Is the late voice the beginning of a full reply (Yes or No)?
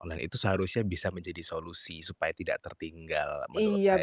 Yes